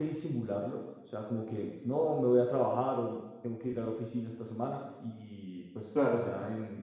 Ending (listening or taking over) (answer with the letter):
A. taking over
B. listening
B